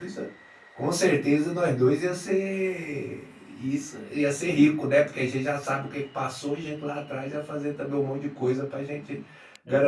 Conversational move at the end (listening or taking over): listening